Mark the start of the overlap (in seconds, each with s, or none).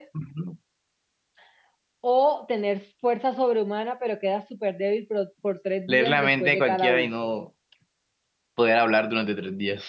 5.9 s